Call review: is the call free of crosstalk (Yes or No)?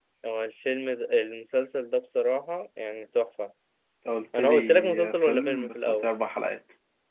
No